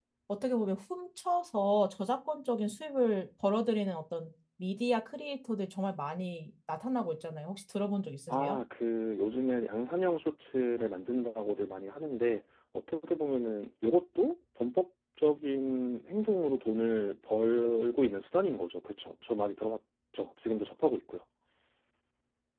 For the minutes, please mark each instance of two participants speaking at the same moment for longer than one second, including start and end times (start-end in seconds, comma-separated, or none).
none